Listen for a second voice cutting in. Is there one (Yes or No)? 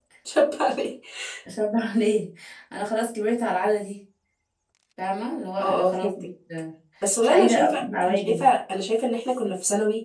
Yes